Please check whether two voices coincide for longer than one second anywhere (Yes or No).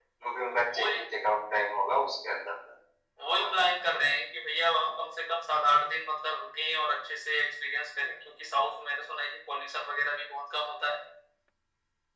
No